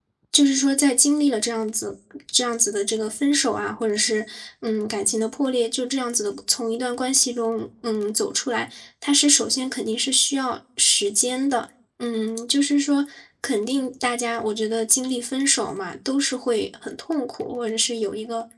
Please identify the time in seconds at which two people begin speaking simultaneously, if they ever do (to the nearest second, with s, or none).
none